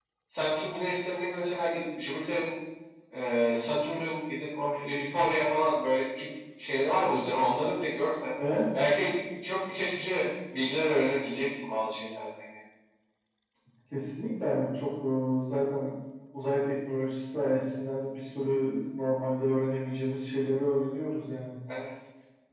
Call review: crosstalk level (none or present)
none